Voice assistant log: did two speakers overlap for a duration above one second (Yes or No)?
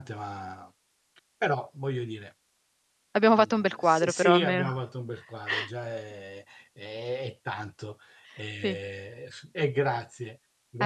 Yes